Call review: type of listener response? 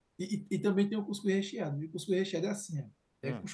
listening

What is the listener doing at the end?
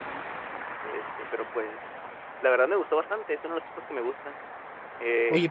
taking over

